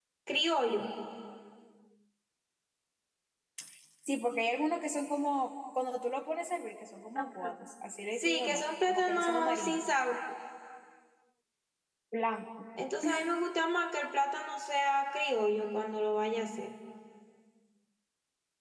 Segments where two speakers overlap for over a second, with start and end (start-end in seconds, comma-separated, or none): 8.2-9.8